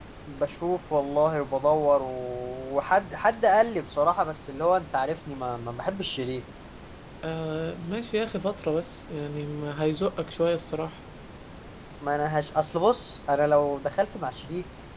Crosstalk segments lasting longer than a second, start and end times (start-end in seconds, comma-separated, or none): none